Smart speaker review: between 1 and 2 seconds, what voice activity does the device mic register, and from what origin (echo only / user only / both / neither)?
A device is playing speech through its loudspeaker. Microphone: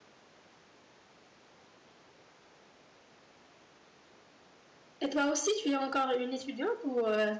neither